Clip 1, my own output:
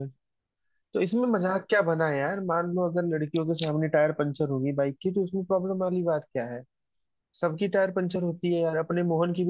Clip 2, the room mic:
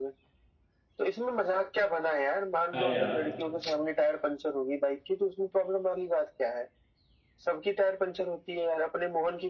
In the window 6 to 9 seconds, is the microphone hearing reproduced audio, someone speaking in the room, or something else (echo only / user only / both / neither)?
echo only